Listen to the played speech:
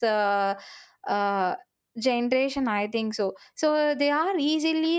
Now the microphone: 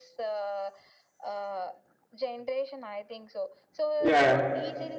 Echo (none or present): present